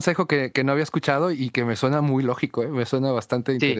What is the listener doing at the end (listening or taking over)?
taking over